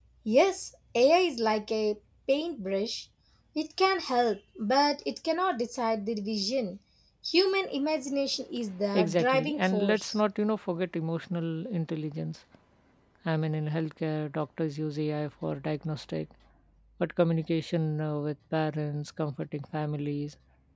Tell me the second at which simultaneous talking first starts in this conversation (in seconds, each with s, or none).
8.9 s